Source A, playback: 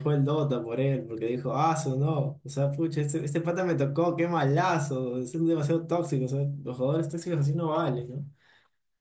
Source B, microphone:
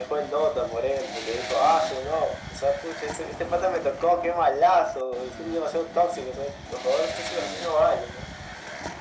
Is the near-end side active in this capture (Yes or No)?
No